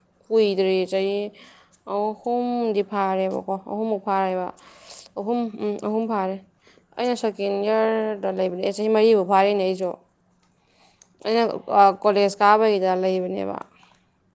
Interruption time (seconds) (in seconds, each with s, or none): none